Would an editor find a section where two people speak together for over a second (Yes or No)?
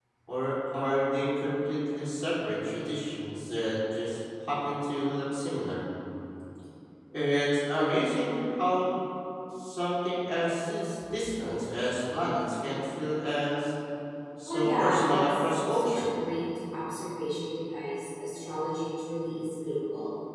Yes